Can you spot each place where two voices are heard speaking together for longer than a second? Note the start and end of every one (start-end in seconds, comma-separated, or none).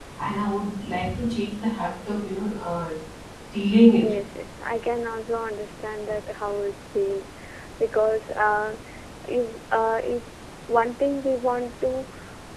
none